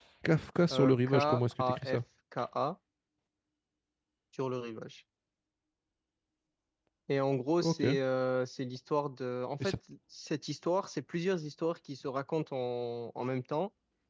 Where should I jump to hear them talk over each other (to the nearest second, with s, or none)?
1 s